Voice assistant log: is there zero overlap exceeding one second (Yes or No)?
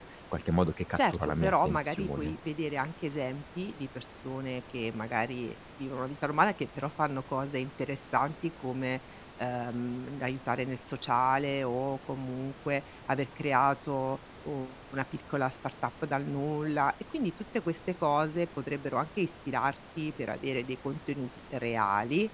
No